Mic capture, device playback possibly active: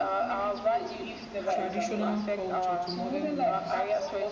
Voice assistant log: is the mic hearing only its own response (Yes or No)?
No